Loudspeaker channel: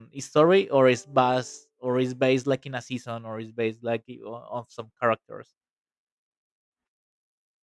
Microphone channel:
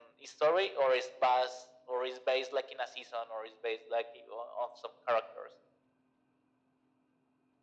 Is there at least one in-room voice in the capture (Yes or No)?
No